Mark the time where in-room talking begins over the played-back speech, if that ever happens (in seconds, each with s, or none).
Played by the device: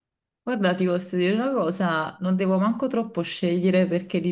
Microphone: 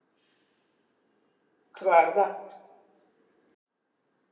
1.7 s